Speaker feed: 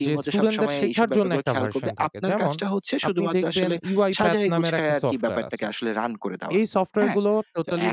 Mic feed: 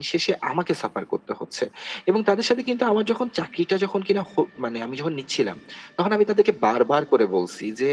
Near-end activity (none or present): present